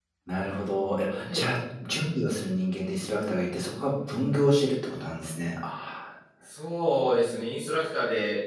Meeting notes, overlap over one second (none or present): none